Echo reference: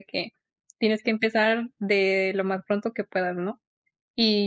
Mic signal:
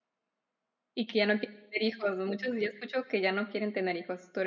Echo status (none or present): none